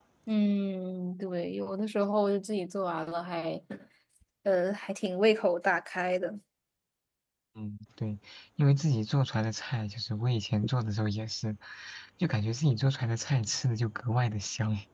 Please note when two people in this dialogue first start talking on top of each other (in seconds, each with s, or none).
none